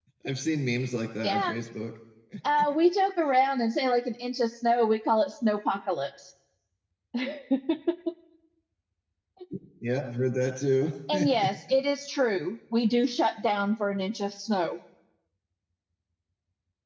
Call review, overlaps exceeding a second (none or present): none